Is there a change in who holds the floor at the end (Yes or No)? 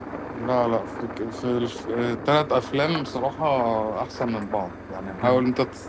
No